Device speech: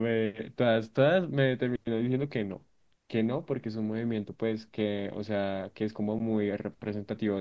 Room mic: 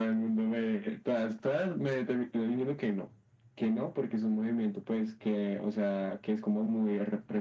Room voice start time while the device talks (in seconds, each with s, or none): none